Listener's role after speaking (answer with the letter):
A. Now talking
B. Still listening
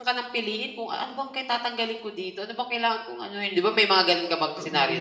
A